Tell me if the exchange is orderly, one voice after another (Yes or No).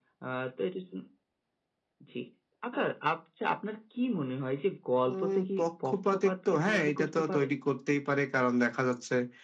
No